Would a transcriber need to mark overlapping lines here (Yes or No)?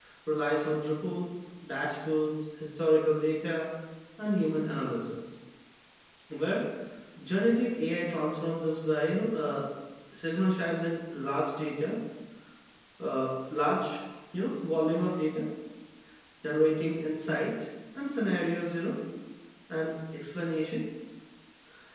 No